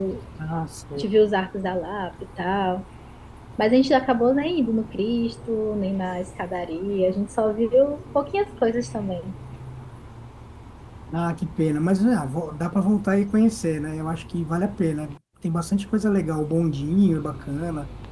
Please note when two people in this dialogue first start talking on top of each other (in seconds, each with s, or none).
none